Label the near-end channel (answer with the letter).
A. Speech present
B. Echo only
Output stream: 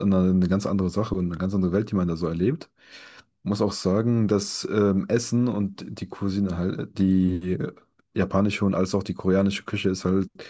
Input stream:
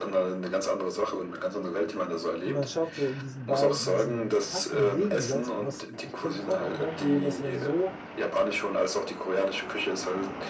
A